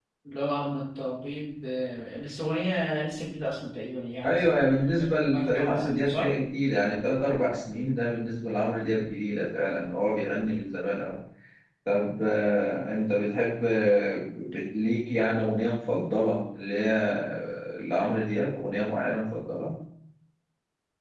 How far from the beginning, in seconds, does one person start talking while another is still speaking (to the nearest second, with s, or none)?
4 s